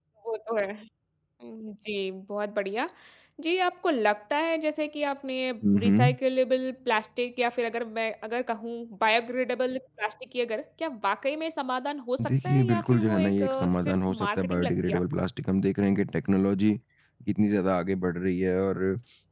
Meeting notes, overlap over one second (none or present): present